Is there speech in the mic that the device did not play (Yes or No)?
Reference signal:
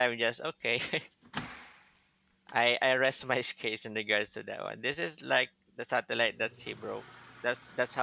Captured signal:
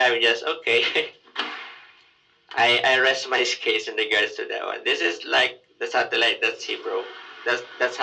No